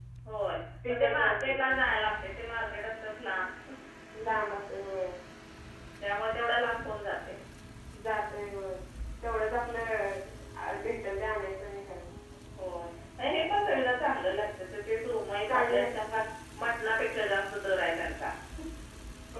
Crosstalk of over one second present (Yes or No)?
No